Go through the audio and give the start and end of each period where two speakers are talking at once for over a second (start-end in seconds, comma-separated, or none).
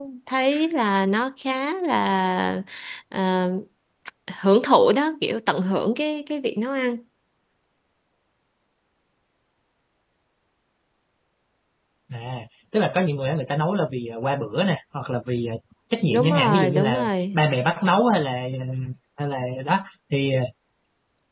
16.1-17.4